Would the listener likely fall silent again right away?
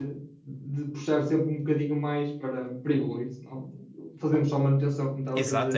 No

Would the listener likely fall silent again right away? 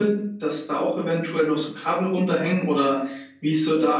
No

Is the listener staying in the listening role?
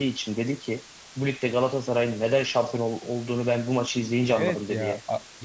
No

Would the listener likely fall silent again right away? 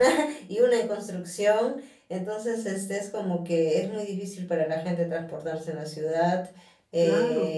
Yes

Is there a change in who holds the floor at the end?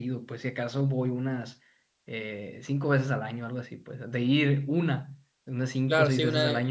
Yes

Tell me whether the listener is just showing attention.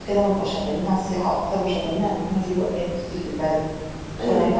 Yes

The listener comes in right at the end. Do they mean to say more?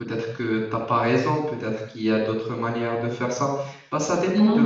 Yes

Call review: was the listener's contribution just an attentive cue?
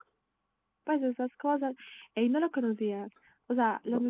Yes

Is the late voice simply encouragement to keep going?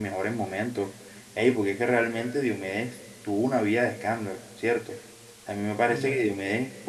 Yes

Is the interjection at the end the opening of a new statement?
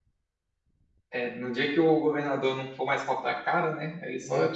No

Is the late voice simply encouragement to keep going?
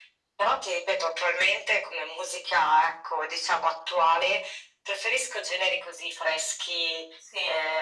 Yes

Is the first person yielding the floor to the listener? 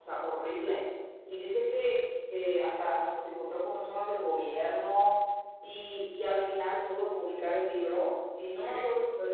No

